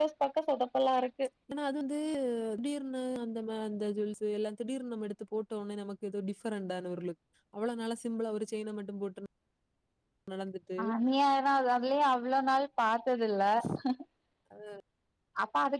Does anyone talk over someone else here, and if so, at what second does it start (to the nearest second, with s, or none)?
none